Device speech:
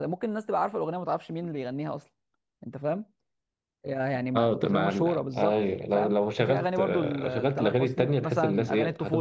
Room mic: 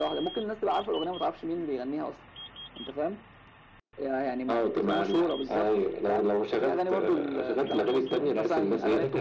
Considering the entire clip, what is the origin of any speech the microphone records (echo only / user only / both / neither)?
both